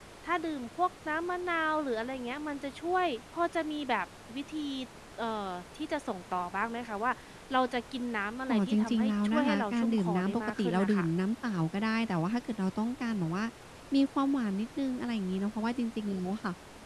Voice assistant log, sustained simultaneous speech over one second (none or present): present